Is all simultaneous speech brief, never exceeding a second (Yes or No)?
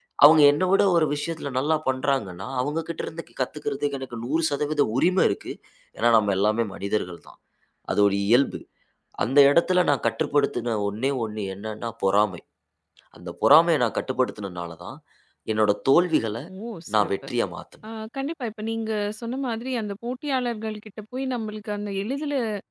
Yes